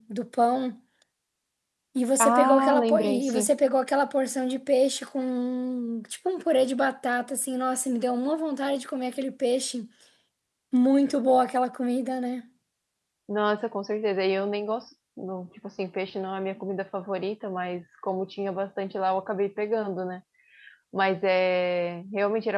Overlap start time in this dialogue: 2 s

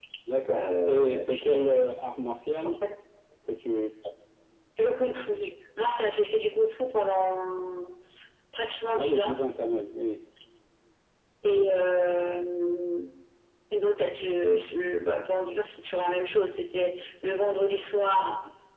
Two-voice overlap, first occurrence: 1 s

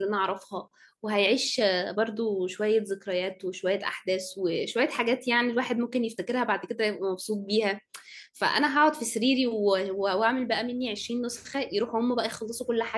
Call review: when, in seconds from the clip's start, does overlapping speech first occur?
none

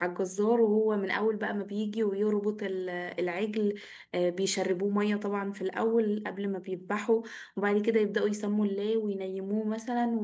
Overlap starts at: none

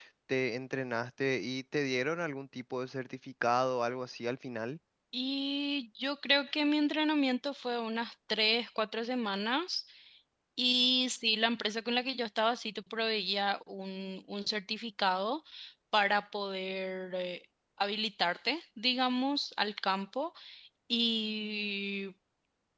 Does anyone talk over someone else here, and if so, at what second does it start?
none

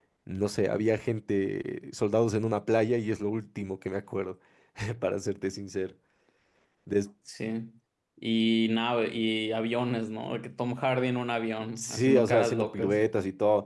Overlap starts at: 12 s

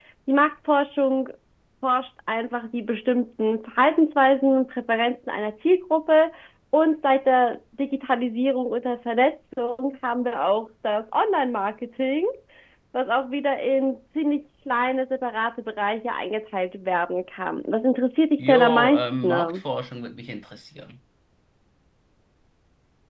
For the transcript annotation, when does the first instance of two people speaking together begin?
18 s

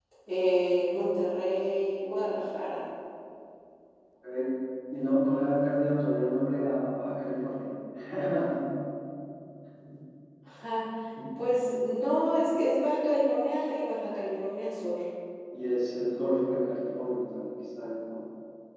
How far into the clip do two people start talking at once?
none

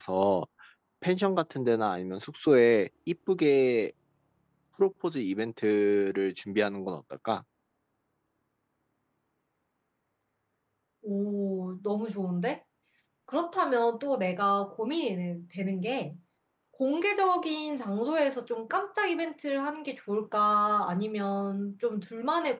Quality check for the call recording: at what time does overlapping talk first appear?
none

